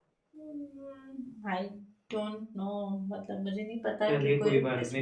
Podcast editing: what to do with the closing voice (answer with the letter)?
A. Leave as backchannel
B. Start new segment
B